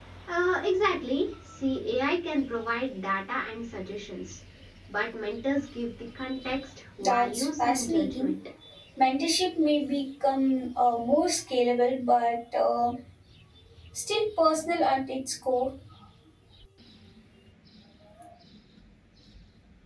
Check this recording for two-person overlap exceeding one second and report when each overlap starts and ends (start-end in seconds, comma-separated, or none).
7.0-8.3